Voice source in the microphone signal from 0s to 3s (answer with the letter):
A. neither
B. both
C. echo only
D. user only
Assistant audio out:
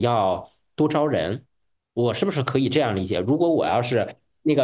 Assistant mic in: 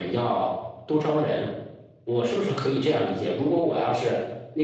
C